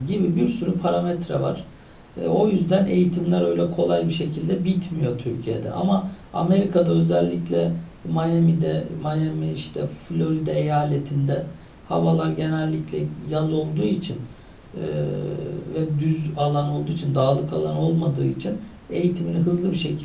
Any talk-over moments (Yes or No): No